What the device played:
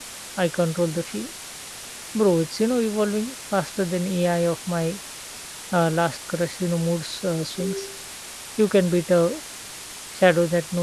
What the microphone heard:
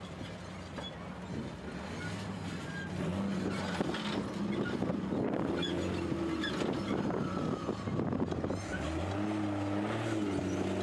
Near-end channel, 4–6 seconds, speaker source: neither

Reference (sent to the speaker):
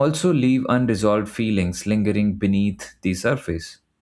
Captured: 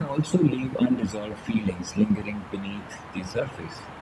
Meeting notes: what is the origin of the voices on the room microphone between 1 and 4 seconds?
echo only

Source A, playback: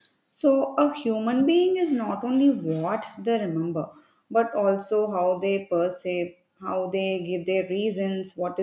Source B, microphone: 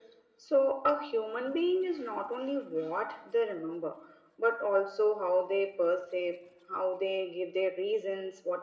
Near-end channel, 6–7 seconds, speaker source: echo only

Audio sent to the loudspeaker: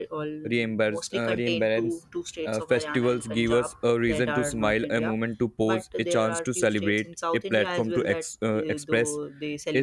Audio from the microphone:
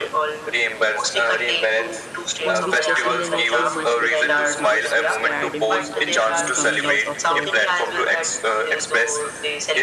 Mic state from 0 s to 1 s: echo only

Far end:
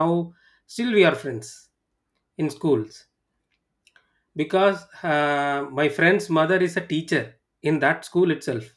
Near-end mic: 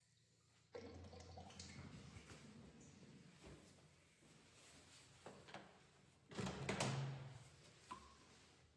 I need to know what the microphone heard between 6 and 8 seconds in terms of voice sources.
neither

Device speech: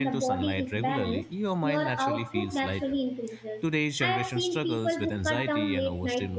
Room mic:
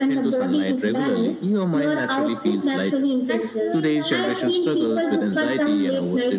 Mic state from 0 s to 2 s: echo only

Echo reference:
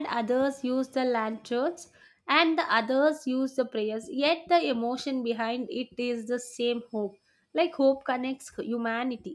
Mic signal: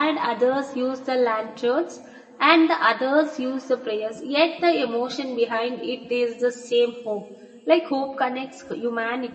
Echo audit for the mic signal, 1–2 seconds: echo only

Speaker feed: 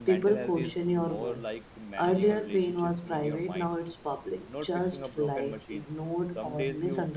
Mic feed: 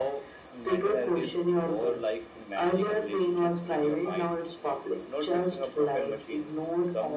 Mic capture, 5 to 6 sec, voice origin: echo only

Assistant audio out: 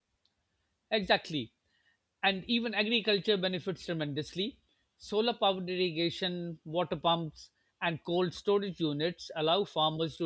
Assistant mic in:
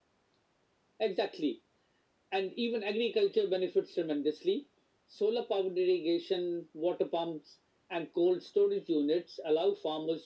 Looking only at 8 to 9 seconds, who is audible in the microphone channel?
echo only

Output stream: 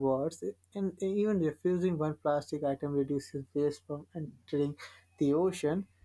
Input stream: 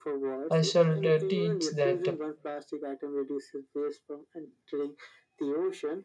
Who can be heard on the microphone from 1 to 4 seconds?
both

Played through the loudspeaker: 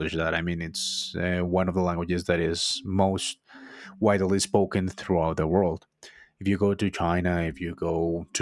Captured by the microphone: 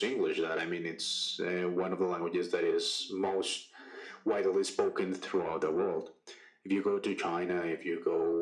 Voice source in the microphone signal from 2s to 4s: echo only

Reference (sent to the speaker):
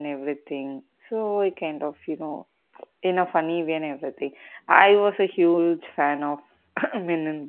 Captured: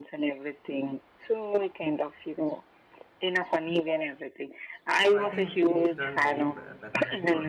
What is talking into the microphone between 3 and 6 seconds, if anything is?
both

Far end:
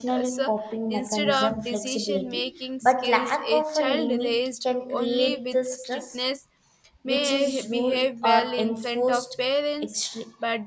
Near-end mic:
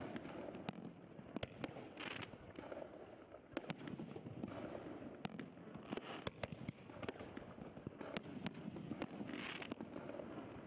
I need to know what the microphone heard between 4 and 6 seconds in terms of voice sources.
neither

